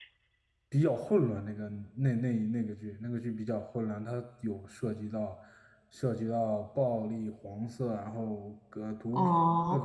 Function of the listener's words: taking over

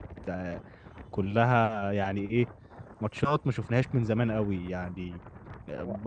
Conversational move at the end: listening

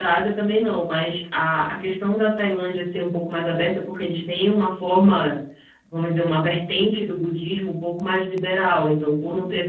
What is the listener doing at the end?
listening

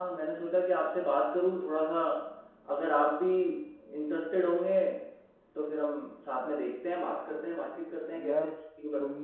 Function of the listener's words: taking over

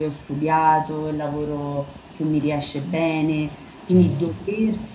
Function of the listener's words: listening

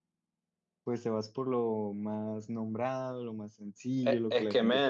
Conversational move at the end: taking over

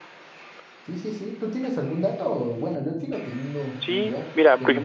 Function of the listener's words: taking over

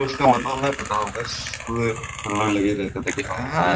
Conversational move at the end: taking over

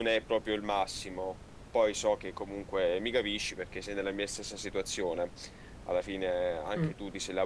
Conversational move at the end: listening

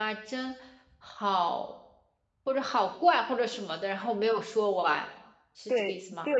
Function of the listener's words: taking over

